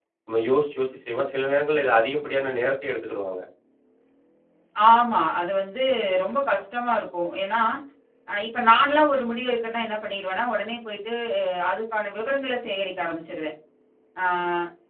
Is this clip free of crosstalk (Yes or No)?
Yes